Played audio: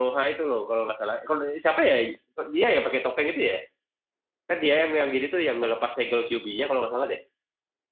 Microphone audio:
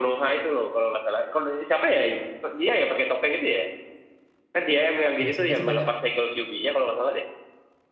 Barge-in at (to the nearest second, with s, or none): 5 s